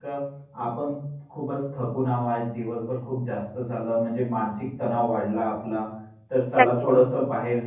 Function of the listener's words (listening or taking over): listening